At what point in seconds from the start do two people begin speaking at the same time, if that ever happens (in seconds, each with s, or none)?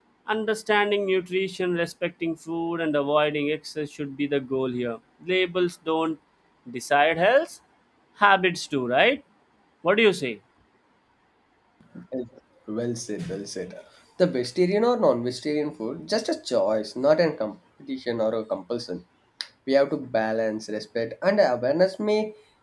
none